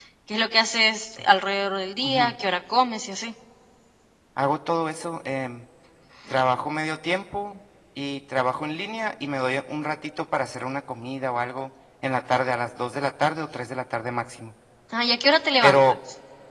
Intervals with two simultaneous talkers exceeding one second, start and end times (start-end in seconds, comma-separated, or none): none